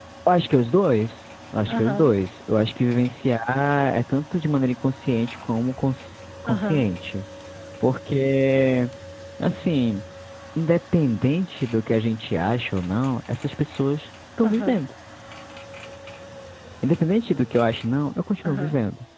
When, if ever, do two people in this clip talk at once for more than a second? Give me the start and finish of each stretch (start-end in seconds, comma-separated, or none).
none